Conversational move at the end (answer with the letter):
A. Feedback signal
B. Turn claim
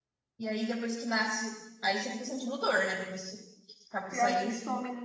B